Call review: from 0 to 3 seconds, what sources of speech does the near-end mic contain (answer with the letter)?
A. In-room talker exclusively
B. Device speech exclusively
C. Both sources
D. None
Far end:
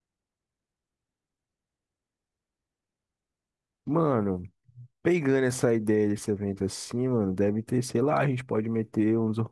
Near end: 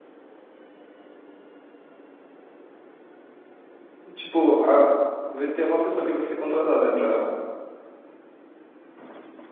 D